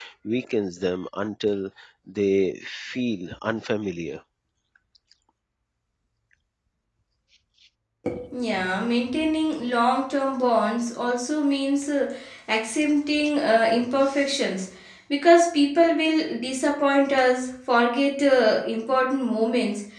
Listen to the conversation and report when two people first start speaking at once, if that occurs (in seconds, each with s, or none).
none